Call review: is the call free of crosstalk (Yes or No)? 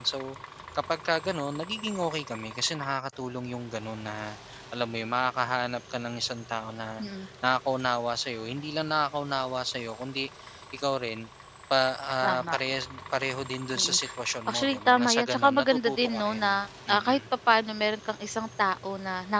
No